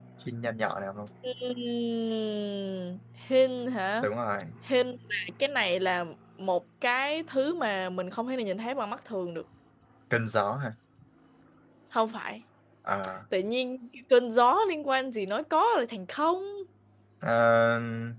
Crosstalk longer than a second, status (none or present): none